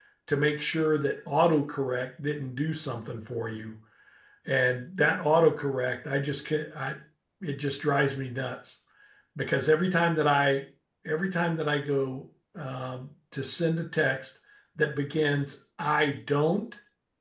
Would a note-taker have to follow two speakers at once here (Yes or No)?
No